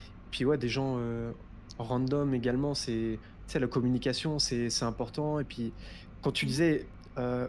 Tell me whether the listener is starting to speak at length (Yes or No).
No